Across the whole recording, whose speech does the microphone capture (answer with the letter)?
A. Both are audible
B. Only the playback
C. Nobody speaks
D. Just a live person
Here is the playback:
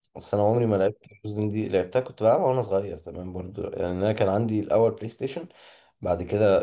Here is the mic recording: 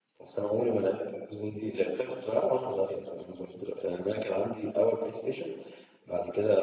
B